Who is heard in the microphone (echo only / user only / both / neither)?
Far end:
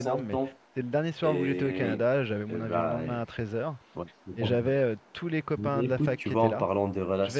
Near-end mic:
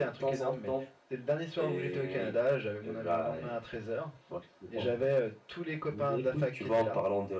echo only